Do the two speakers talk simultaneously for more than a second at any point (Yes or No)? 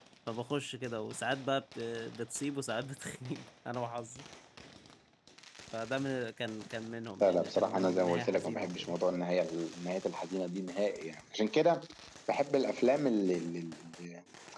Yes